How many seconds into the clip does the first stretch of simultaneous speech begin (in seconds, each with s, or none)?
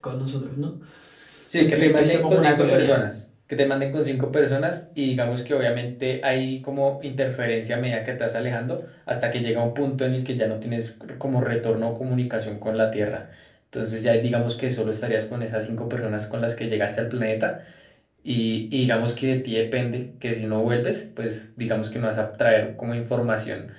1.6 s